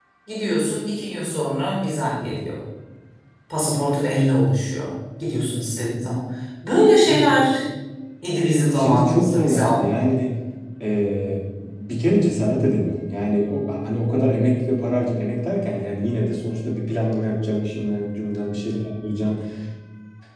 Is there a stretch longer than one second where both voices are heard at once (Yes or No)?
Yes